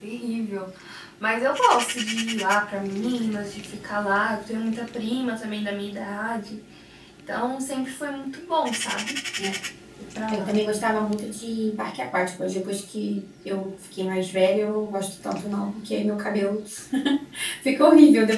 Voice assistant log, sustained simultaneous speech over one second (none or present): none